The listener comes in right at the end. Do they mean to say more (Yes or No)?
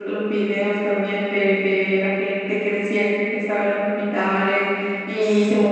No